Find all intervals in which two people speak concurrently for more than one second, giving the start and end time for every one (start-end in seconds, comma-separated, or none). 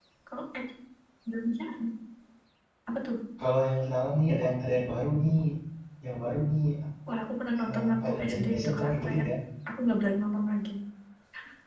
7.7-9.2